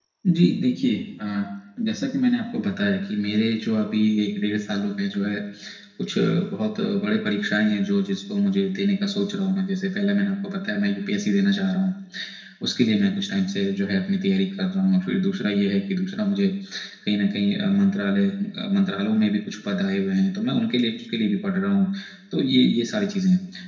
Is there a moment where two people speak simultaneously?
No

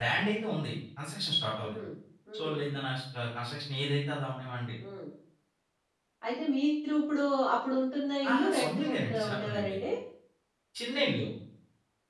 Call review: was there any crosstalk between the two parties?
Yes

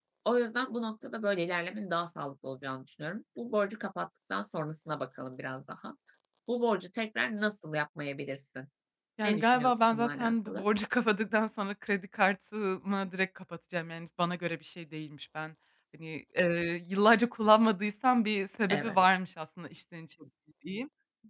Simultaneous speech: Yes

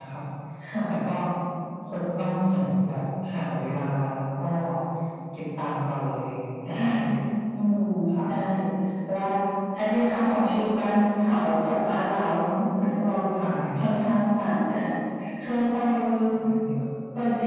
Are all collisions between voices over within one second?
Yes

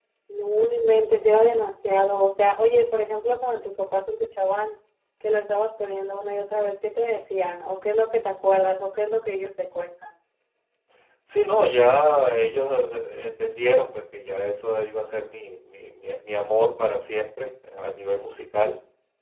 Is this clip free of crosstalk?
Yes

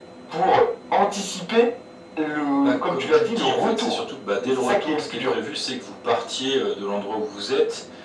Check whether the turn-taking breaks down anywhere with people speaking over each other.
Yes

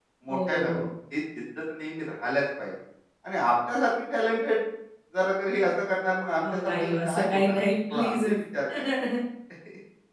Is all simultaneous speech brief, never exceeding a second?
No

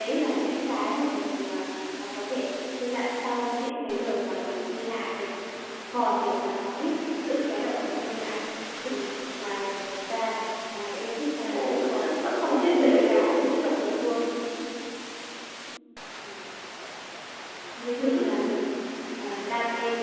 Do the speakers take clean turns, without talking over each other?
No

